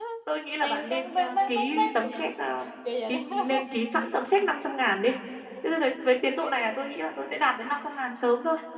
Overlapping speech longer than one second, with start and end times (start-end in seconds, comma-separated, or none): 0.6-1.9